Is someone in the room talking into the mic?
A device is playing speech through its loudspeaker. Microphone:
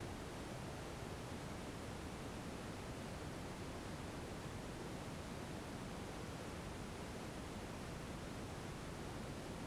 No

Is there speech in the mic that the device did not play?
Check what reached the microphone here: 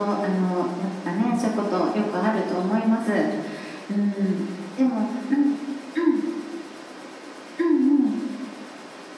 No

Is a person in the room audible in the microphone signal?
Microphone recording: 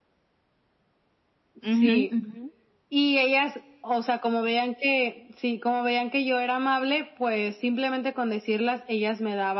Yes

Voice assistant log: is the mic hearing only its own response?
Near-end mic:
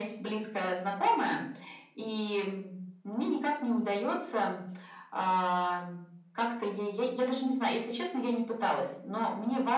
Yes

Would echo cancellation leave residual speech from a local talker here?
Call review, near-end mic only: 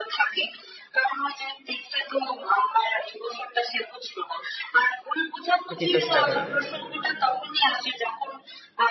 Yes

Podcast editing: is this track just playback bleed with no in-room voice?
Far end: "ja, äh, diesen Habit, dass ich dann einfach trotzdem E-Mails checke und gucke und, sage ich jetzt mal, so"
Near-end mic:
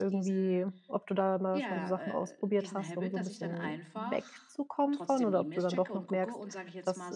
No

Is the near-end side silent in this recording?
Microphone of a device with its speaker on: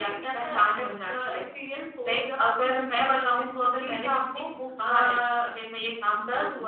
Yes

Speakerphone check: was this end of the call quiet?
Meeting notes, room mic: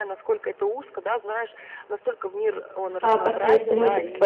No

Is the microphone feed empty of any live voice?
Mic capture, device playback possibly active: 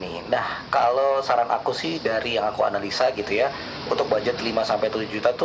Yes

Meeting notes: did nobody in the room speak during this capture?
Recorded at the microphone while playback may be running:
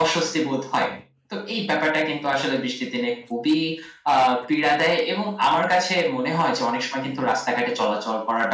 Yes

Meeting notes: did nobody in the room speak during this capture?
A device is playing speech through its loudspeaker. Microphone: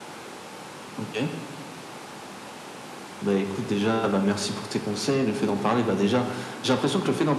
Yes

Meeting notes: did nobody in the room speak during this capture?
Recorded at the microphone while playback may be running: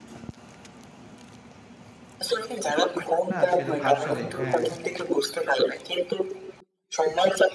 No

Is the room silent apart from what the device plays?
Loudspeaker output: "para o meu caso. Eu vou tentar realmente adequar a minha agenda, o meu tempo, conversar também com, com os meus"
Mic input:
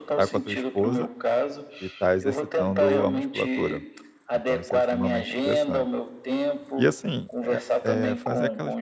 No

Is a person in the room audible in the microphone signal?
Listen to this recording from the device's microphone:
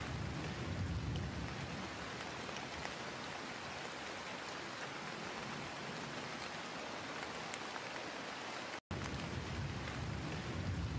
No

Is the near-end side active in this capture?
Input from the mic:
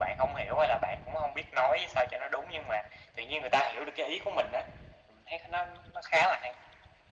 No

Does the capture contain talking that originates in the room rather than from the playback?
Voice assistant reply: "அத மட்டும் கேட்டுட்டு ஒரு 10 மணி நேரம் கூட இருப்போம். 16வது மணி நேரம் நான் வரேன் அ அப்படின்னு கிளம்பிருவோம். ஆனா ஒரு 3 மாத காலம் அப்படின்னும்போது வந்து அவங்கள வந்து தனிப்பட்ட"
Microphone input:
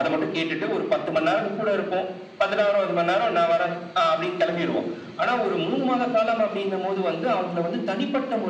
No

